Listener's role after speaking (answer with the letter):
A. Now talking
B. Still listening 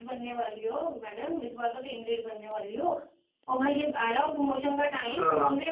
B